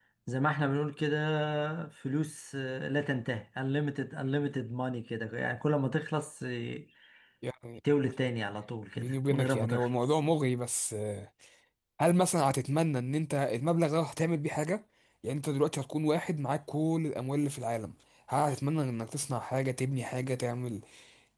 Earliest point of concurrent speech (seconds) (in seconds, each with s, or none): 9.0 s